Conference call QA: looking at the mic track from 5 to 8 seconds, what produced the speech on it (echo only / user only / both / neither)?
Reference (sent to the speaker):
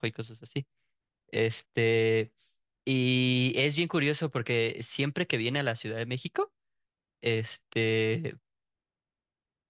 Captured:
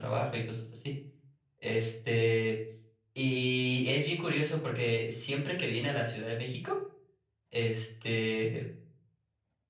echo only